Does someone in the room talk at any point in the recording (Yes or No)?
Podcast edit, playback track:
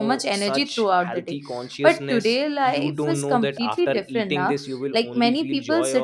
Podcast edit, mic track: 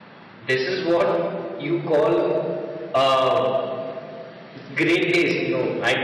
Yes